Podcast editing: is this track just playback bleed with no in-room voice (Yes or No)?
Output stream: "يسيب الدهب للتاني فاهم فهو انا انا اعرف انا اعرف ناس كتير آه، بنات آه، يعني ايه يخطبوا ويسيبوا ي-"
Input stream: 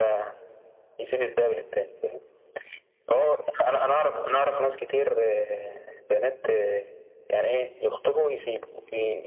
Yes